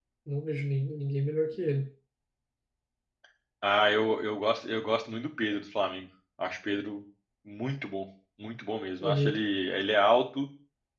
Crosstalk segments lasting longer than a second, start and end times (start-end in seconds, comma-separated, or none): none